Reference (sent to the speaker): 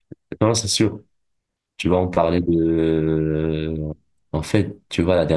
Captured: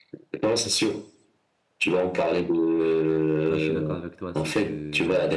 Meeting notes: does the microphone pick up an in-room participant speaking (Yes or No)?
Yes